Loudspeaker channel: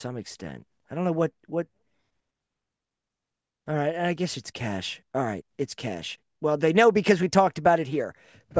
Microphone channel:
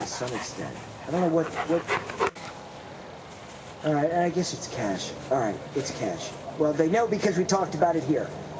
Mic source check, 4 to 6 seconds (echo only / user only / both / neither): echo only